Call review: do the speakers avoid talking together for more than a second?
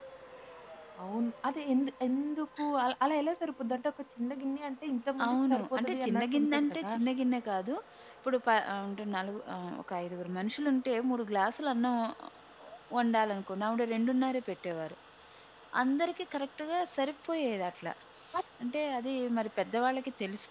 No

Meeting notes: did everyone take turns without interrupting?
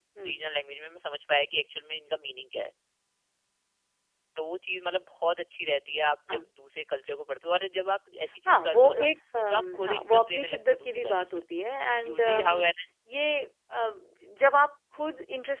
No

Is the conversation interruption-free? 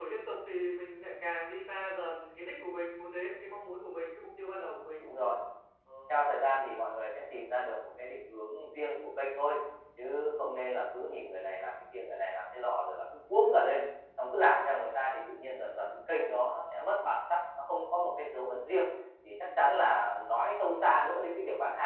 Yes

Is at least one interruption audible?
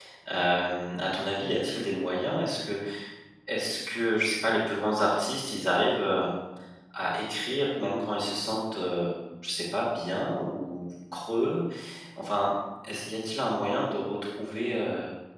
No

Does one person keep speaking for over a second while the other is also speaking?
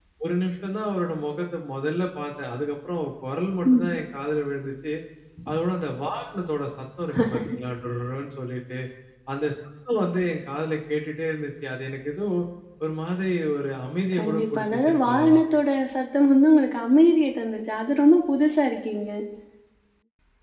Yes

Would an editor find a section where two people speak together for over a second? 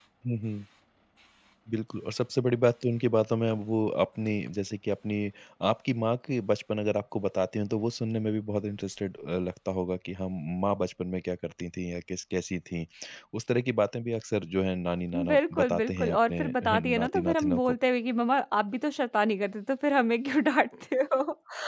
Yes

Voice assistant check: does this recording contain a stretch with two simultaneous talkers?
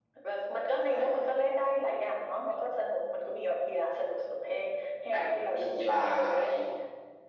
Yes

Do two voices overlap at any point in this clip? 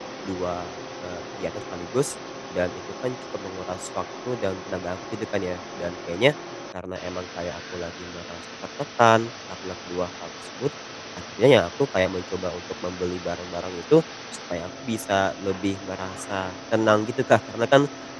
No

